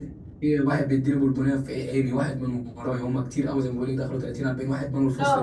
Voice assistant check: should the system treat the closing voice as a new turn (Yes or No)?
Yes